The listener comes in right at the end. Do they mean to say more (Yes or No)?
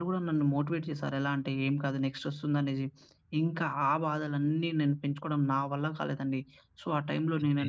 No